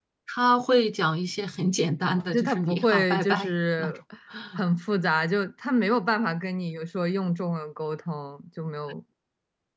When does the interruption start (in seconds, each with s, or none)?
2.3 s